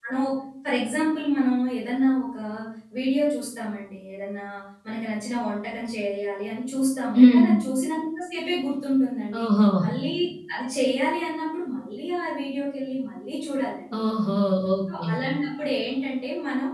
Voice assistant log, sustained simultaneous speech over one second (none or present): none